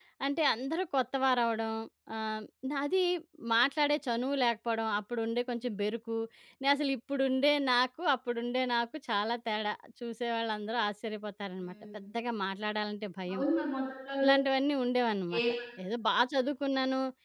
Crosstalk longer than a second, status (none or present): none